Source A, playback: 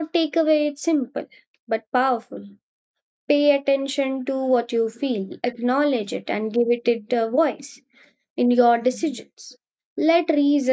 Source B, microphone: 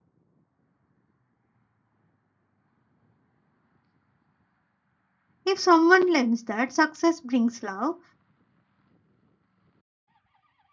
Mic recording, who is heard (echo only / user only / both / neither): user only